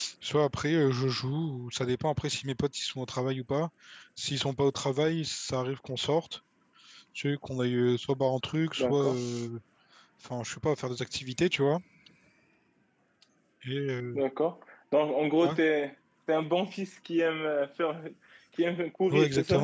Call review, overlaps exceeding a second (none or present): none